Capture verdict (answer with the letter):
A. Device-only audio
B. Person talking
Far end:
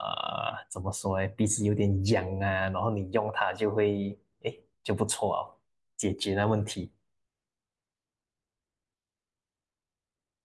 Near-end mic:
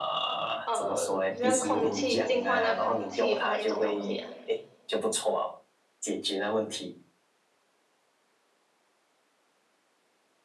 B